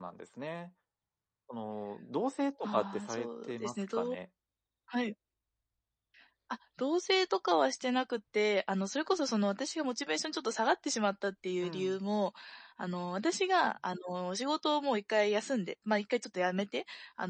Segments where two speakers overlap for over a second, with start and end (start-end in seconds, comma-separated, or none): 2.6-4.2